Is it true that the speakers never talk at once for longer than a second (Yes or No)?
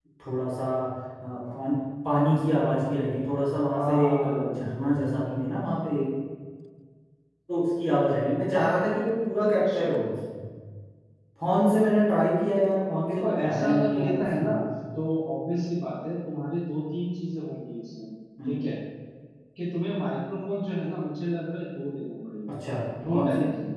No